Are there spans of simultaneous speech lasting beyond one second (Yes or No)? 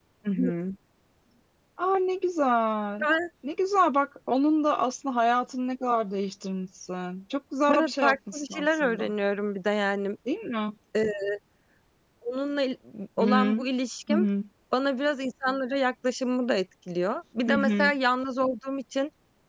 Yes